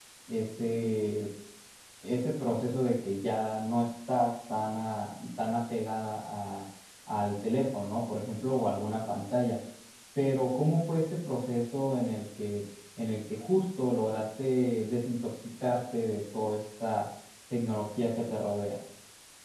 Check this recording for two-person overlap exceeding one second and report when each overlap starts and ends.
none

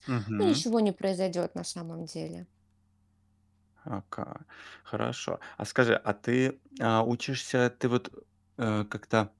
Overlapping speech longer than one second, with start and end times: none

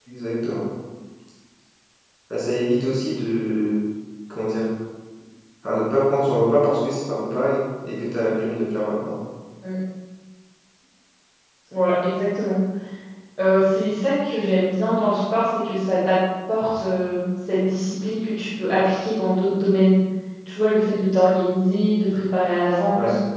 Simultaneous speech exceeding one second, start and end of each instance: none

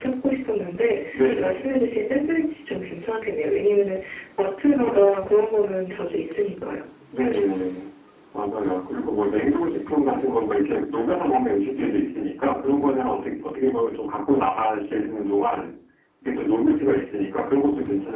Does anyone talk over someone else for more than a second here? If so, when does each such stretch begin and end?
none

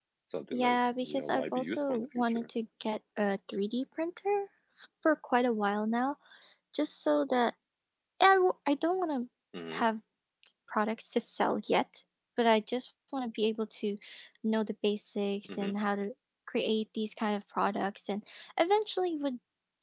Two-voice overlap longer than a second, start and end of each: 0.5-2.5

